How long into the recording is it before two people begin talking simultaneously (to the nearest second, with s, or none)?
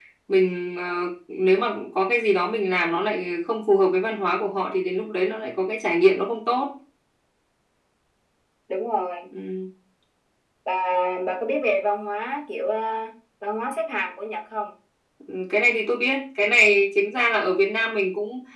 none